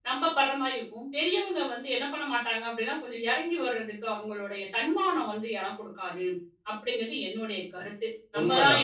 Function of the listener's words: taking over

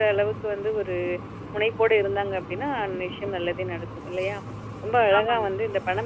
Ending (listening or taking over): listening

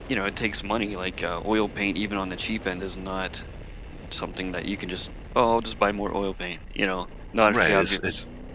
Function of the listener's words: taking over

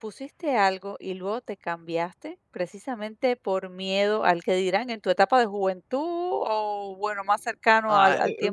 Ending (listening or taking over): taking over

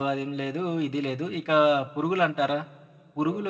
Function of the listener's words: listening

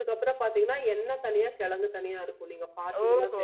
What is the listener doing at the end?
taking over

